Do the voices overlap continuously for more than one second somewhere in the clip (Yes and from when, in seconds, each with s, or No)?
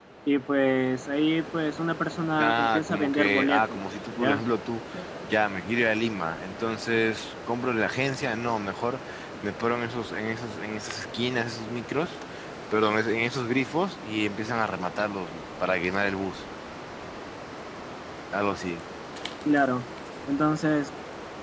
Yes, from 2.4 s